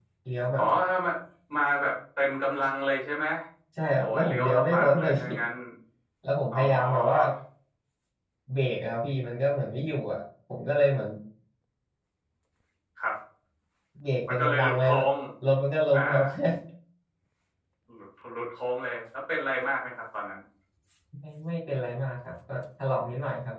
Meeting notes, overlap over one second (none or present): present